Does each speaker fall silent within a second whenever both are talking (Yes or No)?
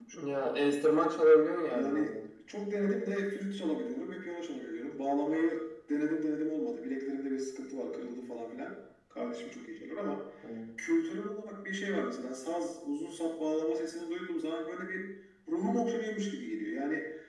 Yes